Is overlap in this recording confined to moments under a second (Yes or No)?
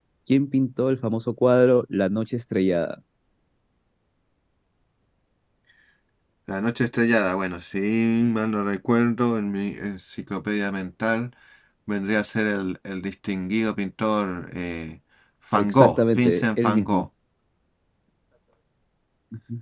No